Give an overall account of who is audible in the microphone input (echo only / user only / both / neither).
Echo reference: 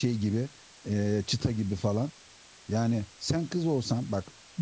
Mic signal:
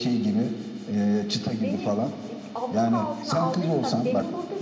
both